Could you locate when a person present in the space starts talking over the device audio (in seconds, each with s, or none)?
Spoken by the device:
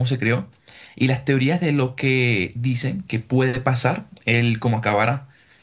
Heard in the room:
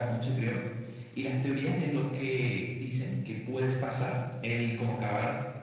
none